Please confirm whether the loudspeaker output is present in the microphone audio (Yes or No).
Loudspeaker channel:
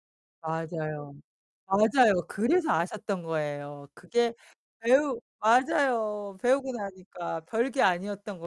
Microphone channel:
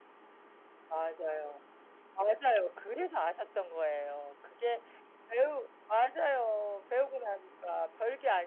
Yes